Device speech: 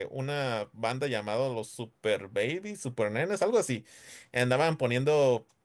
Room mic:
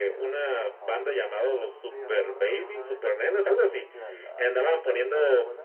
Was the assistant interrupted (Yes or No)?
Yes